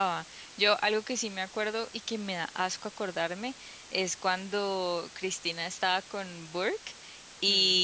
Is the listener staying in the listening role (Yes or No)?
Yes